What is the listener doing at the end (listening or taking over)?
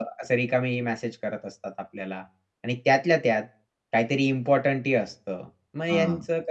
listening